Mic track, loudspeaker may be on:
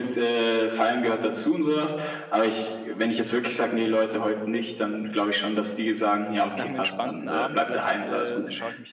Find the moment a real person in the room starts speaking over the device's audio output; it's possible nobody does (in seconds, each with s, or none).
6.5 s